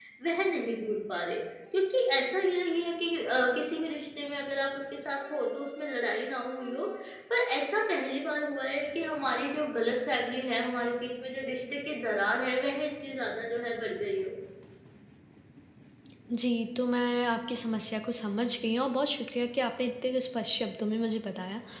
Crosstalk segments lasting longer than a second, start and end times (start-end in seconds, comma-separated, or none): none